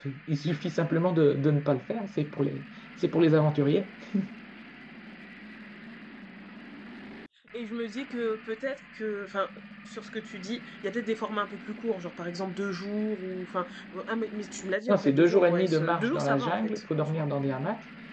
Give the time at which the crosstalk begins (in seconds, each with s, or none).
14.9 s